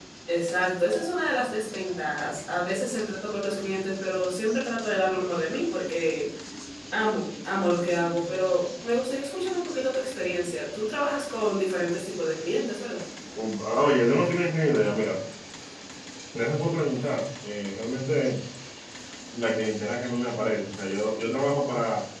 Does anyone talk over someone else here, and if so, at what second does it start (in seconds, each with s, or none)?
none